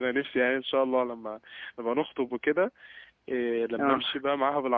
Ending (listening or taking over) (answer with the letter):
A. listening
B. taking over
A